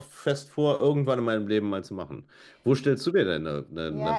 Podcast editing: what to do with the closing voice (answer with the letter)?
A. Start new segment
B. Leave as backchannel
A